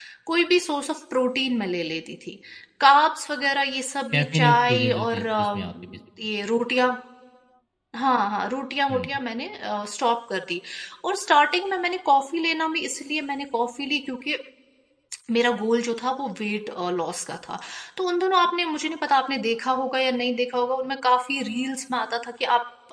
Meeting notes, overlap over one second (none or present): present